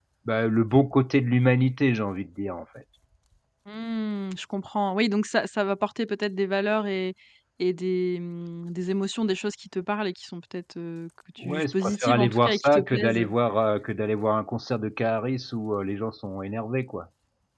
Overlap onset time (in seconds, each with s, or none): 11.4 s